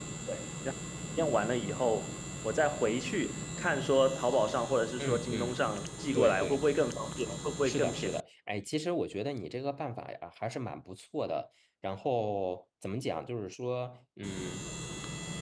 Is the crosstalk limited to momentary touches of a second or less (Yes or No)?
Yes